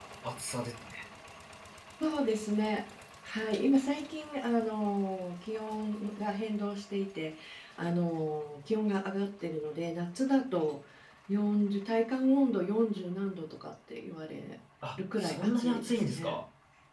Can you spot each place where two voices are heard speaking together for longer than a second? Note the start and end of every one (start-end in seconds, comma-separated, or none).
15.0-16.4